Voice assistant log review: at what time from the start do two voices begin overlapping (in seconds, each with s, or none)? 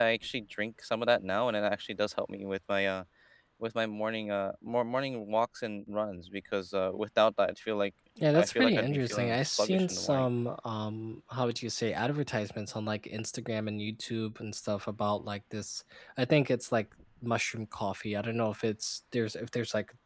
8.3 s